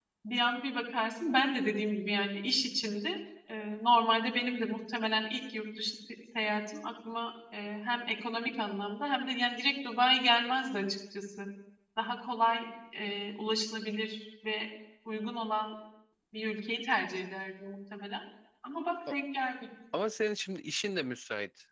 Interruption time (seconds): none

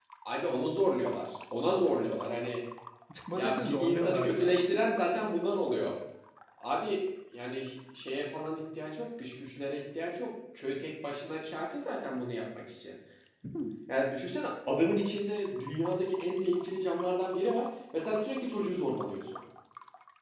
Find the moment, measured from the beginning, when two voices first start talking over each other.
3.3 s

